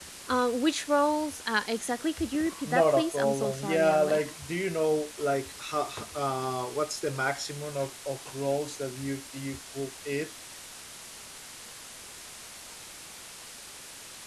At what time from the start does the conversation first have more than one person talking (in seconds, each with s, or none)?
2.6 s